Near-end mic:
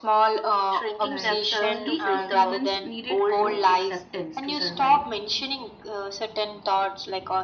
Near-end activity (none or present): present